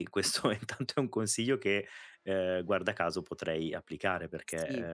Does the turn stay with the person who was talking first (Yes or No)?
Yes